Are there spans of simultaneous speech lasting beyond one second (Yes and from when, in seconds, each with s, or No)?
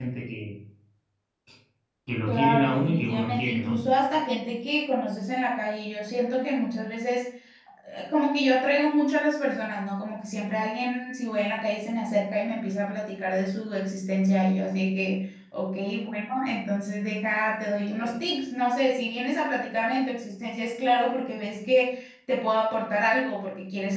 Yes, from 2.3 s